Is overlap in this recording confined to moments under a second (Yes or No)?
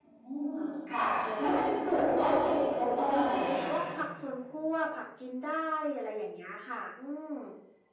No